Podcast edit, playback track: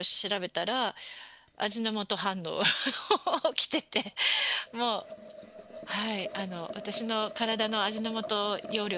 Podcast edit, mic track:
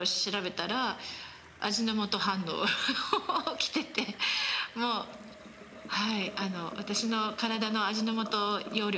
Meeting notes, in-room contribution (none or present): none